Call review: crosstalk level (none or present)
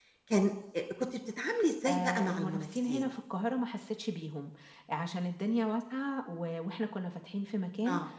present